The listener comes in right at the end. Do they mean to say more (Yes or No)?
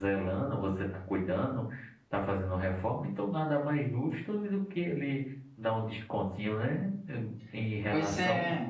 No